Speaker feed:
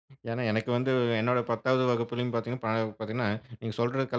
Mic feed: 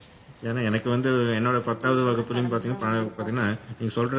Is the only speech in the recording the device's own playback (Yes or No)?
No